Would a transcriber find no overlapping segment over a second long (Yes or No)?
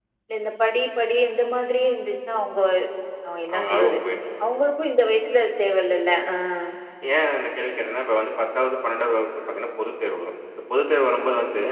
Yes